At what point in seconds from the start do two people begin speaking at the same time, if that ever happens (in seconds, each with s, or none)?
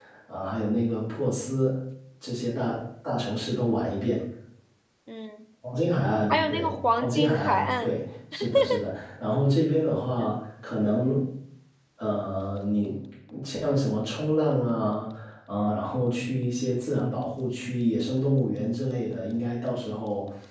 6.3 s